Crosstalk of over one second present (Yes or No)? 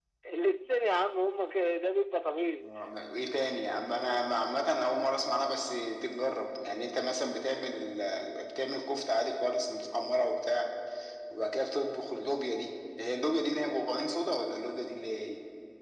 No